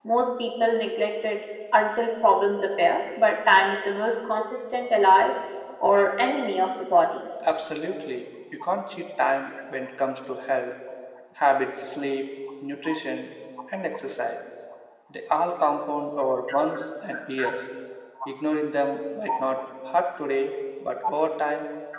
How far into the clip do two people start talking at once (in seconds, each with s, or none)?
none